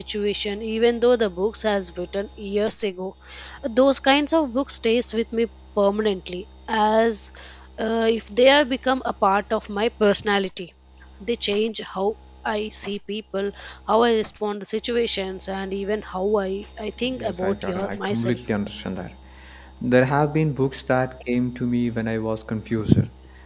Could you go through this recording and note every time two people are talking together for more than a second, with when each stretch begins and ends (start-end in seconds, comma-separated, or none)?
17.1-18.4